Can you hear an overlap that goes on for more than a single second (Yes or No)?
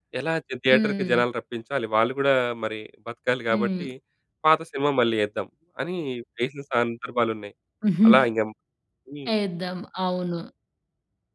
No